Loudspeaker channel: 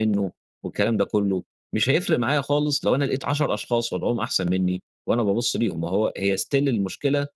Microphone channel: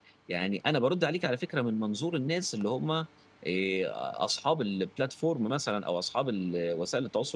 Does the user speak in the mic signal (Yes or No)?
Yes